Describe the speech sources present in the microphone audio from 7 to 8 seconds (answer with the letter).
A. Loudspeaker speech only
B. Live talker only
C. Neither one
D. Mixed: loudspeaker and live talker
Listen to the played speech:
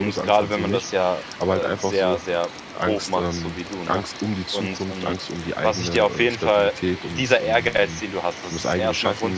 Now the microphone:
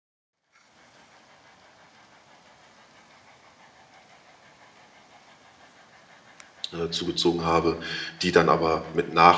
B